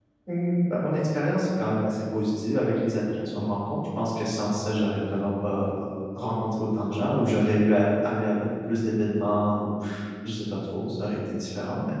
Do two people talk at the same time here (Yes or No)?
No